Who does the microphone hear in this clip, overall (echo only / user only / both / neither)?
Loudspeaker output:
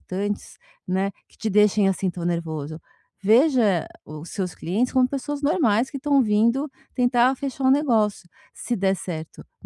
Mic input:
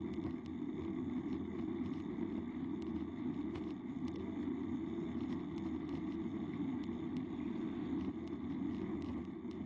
neither